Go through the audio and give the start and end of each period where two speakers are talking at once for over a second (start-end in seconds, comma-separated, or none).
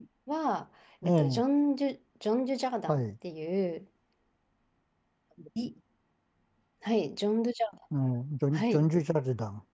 none